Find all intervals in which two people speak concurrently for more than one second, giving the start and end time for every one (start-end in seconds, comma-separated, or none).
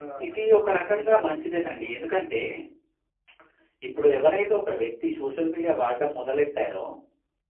0.9-2.4